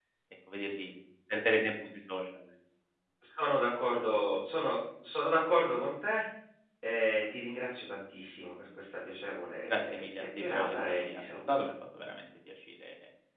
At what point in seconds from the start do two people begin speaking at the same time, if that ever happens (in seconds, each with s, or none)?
9.7 s